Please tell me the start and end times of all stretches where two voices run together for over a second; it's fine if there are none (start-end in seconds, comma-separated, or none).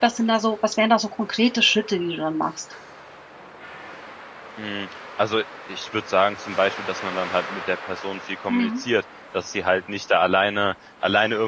none